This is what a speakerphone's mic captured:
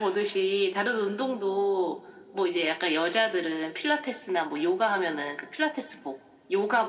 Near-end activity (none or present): none